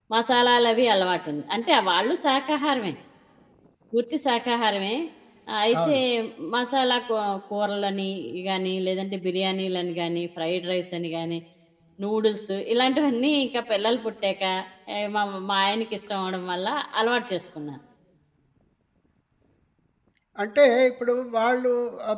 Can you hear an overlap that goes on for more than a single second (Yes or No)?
No